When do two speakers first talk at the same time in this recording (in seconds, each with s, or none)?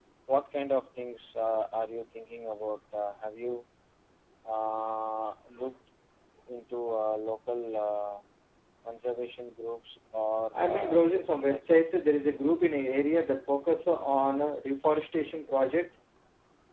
10.5 s